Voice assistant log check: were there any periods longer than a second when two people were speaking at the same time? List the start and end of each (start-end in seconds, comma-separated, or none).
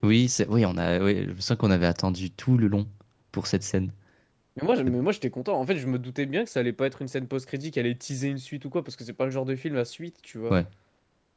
none